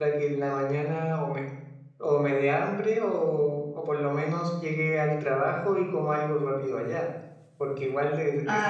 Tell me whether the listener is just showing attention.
Yes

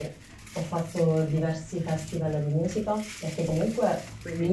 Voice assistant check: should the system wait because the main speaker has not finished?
Yes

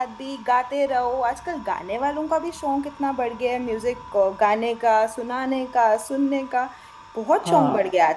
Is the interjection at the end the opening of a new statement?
Yes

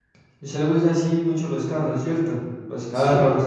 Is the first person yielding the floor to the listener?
Yes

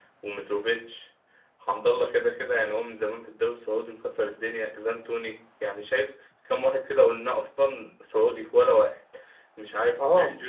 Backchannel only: Yes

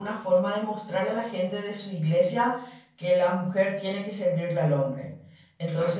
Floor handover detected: No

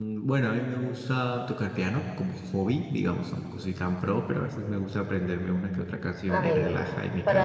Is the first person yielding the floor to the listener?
Yes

